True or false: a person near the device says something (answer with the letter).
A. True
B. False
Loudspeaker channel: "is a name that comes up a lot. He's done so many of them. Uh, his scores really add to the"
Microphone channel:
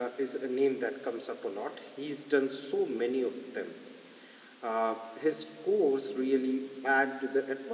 B